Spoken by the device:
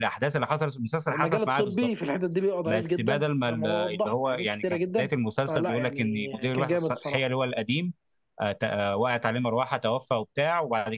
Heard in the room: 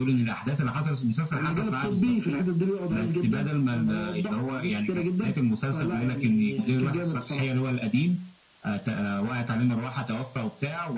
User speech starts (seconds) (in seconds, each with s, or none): none